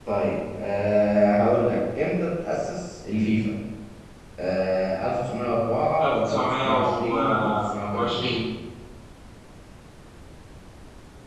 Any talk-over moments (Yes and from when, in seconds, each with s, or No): Yes, from 6.0 s